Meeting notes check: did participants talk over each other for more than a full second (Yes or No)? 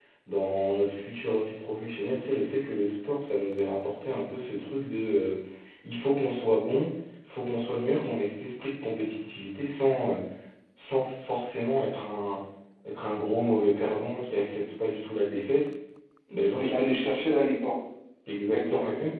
No